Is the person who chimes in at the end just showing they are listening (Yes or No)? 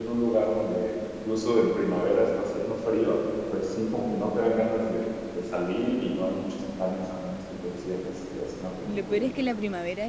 No